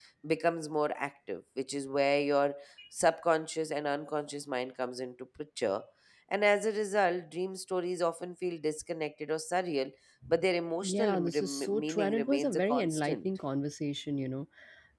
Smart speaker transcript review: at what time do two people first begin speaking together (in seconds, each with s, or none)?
10.8 s